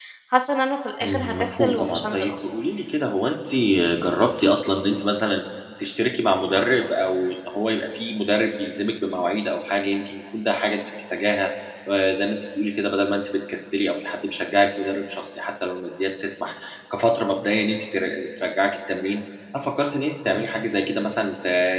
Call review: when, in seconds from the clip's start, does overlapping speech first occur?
1.0 s

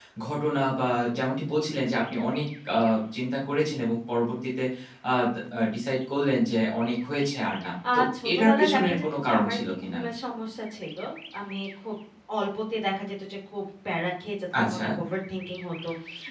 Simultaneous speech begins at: 7.9 s

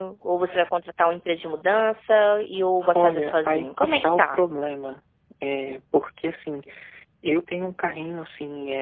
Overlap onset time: 2.9 s

